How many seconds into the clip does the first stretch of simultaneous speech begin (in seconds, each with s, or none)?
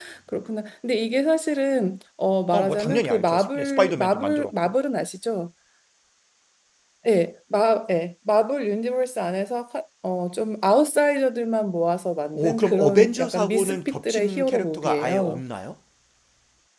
2.5 s